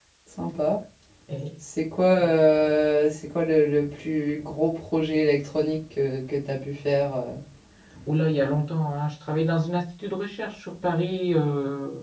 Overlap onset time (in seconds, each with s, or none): none